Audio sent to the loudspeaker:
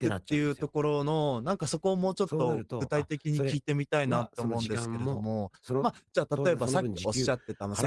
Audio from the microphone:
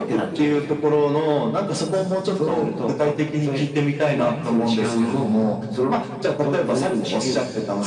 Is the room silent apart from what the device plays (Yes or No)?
Yes